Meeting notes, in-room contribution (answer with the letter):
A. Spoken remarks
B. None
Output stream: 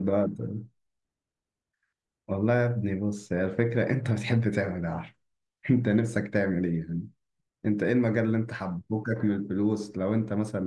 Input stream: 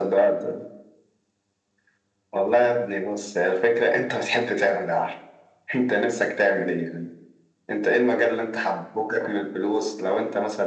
B